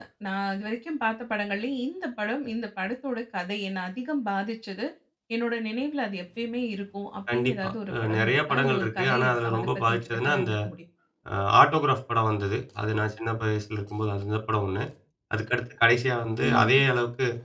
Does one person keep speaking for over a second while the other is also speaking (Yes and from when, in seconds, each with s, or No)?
Yes, from 7.3 s